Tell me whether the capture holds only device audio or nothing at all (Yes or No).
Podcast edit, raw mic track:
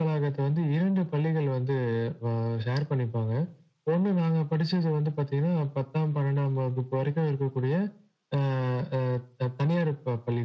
Yes